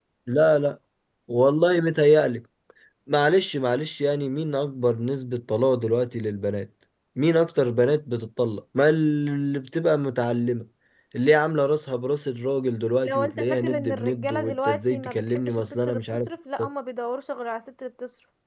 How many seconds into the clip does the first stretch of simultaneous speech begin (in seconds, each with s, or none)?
13.1 s